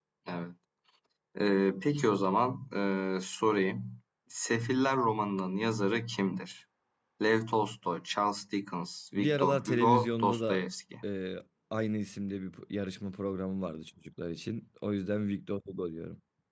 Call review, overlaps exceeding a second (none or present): present